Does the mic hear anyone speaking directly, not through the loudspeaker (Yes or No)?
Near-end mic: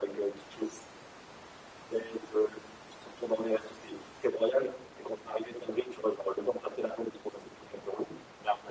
No